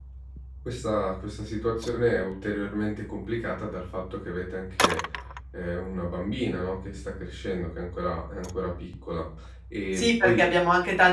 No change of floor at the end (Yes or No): No